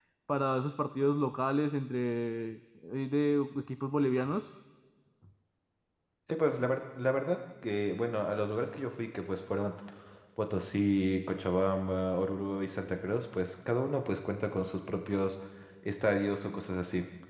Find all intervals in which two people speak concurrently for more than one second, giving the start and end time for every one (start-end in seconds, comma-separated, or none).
none